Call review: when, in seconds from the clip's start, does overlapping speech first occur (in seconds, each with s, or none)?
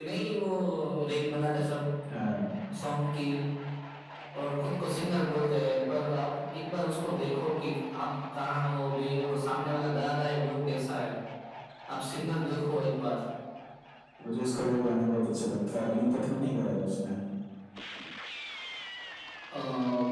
none